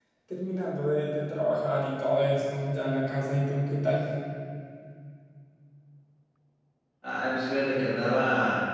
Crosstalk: none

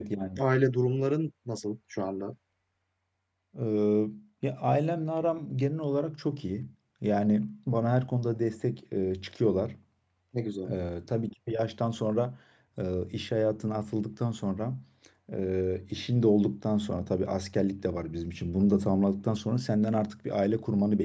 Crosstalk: none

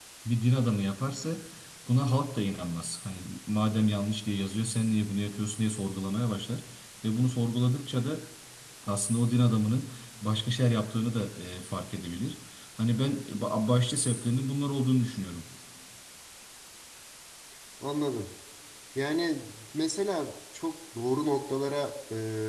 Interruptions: none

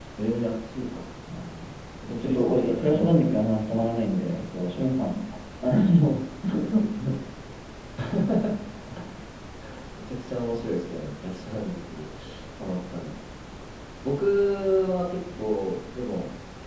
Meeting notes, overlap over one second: present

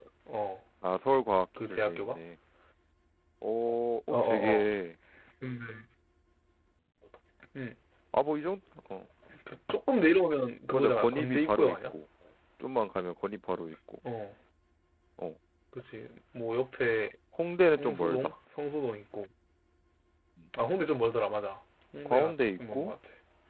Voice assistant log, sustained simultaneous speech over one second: present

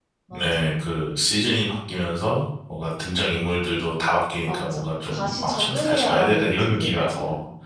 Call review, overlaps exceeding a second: present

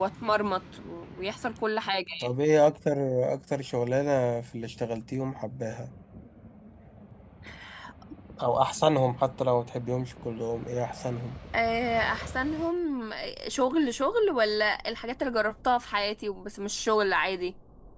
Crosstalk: none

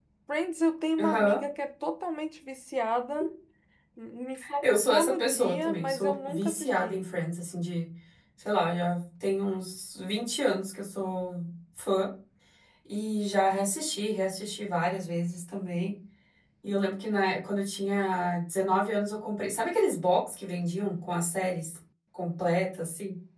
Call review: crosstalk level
present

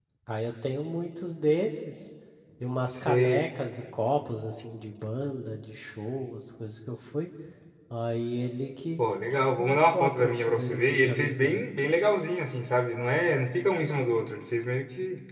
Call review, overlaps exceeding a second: present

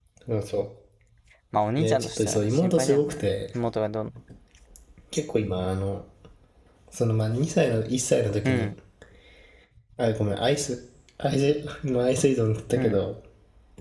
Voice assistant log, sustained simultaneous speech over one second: present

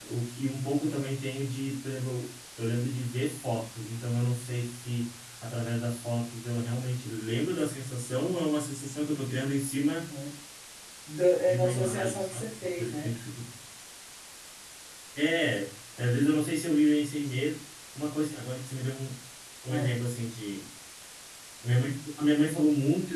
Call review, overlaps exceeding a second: present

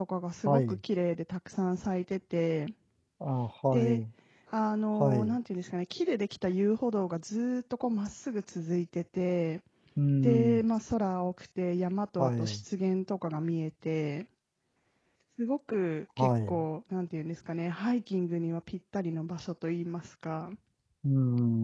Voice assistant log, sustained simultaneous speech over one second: none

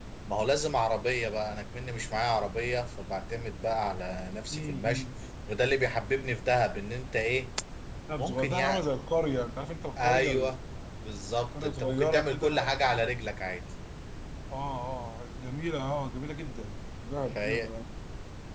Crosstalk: present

